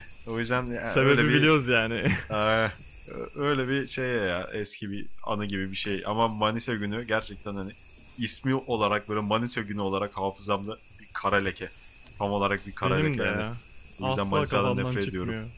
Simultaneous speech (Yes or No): Yes